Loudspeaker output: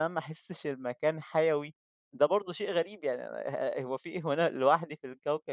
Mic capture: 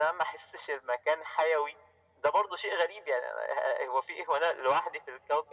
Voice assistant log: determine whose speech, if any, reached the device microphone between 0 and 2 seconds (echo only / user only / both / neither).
echo only